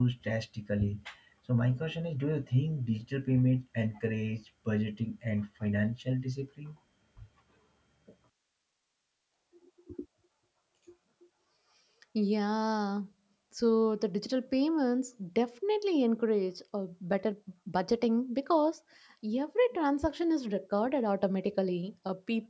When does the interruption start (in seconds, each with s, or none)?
none